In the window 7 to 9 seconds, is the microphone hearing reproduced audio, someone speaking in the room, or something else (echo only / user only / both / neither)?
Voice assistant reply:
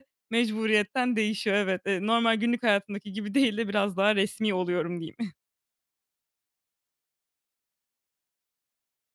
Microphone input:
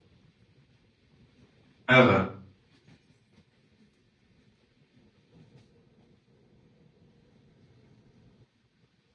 neither